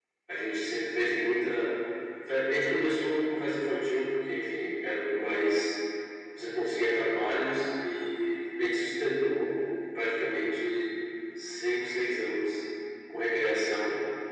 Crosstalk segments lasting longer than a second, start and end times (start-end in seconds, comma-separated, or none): none